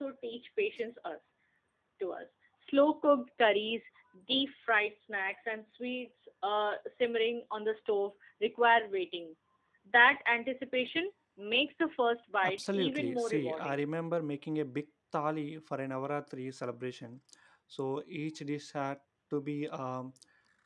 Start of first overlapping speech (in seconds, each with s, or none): 12.4 s